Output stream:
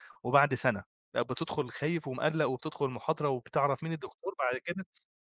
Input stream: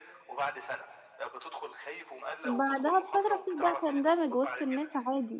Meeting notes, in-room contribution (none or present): present